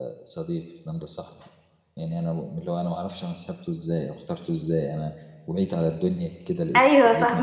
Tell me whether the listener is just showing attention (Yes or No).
No